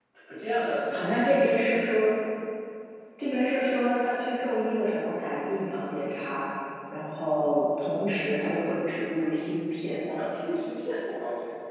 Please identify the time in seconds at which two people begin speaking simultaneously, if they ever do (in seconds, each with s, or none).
none